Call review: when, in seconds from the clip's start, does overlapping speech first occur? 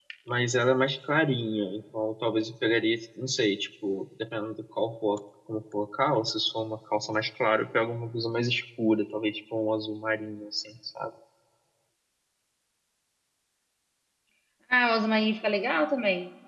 none

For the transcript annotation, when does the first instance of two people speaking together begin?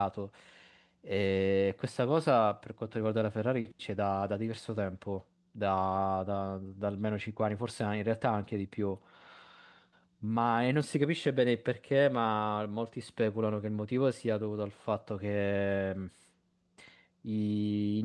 none

